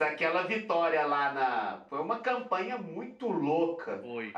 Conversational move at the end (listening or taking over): listening